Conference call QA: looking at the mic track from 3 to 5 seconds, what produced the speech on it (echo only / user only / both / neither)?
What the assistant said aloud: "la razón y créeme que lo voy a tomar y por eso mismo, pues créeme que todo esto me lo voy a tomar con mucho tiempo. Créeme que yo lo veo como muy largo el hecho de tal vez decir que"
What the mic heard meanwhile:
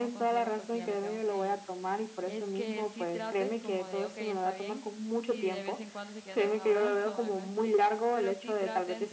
both